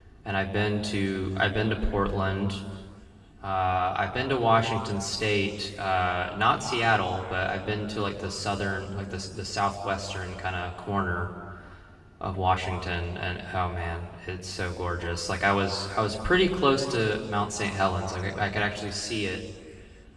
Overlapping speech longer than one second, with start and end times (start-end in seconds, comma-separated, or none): none